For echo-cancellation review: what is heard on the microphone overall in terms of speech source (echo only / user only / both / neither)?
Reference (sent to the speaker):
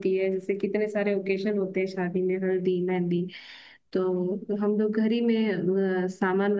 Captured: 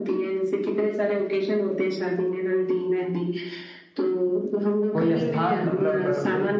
both